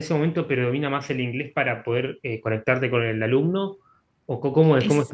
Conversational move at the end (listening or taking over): taking over